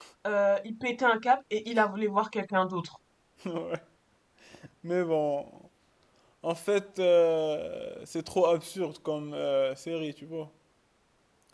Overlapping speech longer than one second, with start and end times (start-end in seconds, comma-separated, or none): none